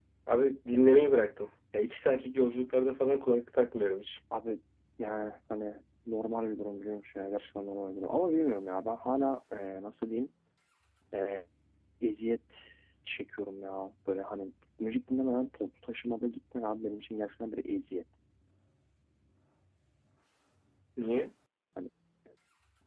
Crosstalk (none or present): none